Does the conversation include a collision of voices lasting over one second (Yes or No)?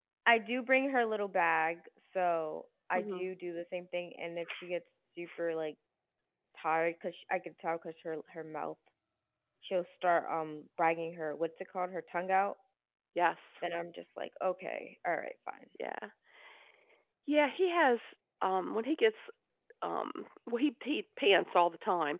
No